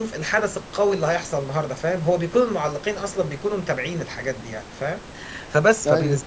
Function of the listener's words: listening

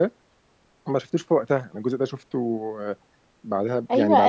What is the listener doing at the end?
taking over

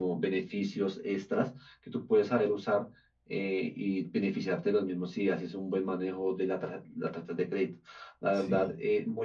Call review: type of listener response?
listening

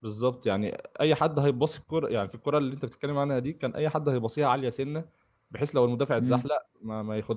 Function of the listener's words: listening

